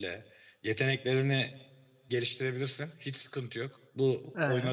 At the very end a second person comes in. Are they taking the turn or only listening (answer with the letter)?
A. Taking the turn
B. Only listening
B